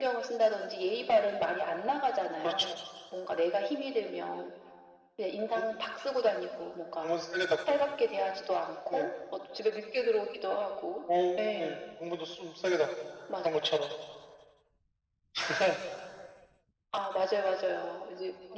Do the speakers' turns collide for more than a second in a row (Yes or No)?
No